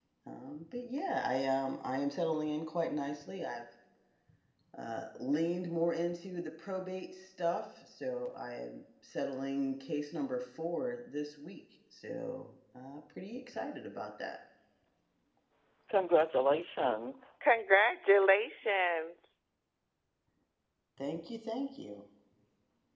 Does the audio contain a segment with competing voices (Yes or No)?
No